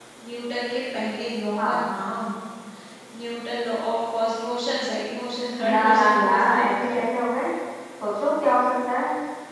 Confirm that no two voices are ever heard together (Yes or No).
No